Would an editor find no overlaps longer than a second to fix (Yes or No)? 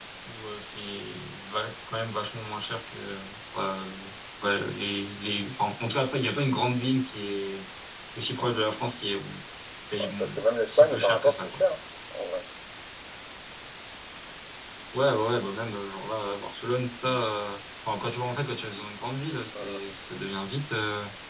No